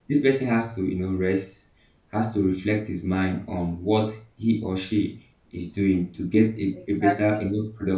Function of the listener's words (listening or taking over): listening